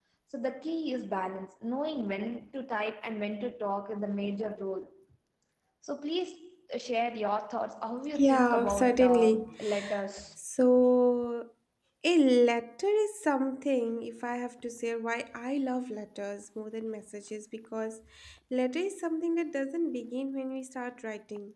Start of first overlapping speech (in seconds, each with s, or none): 8.2 s